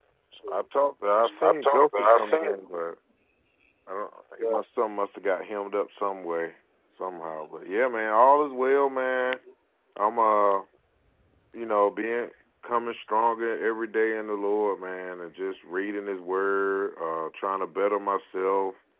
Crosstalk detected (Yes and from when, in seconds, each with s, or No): Yes, from 1.2 s